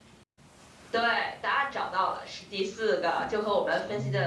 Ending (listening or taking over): listening